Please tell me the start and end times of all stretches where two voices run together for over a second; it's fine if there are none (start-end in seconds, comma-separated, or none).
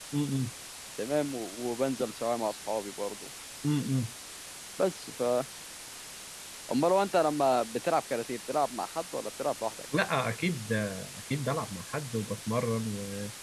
none